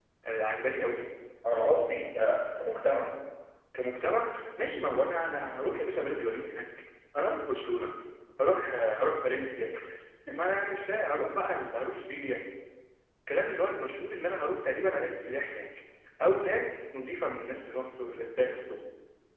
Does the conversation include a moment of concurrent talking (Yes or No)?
No